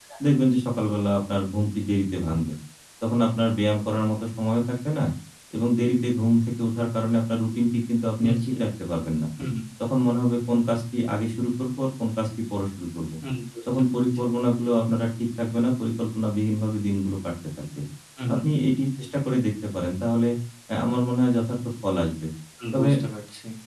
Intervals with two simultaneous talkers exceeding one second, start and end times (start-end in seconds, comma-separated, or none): none